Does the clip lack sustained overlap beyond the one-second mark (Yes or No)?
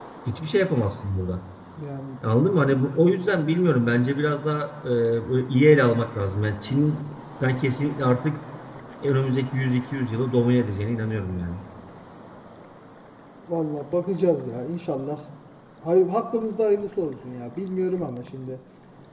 Yes